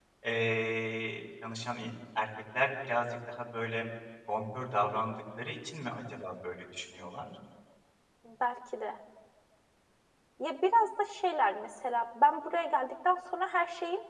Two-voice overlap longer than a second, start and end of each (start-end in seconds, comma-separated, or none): none